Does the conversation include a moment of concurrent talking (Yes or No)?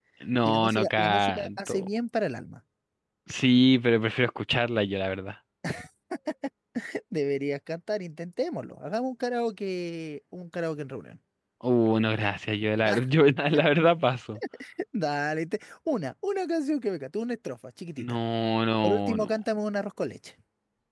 Yes